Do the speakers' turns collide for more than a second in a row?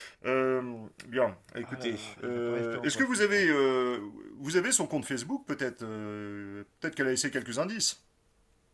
Yes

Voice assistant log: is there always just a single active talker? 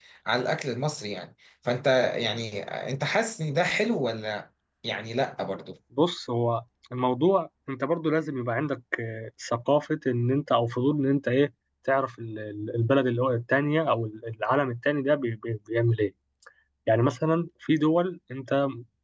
Yes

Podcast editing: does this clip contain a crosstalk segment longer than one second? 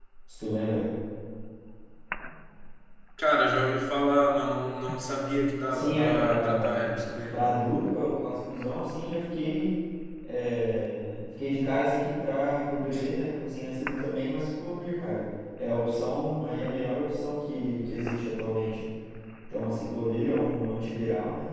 Yes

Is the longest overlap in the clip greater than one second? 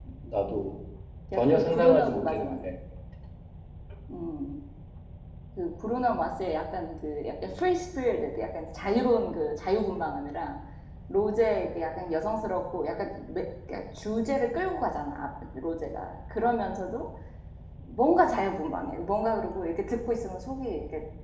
Yes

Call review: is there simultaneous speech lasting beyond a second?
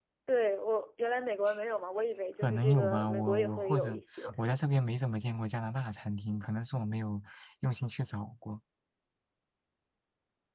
Yes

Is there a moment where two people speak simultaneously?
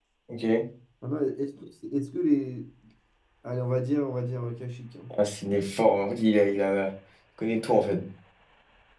No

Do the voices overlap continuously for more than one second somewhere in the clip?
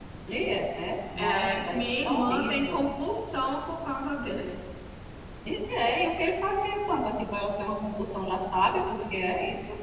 Yes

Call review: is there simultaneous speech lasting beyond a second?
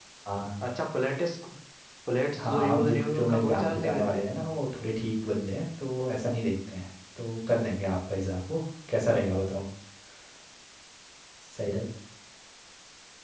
Yes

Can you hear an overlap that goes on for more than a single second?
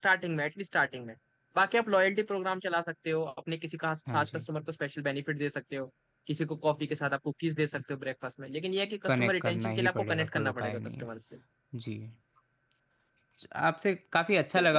Yes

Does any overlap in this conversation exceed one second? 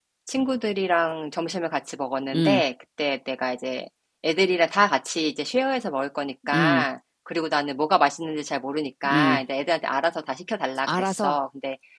No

